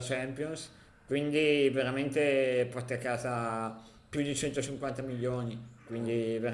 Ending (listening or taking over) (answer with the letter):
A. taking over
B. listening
B